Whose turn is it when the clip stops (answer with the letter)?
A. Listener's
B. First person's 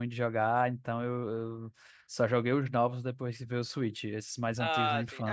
A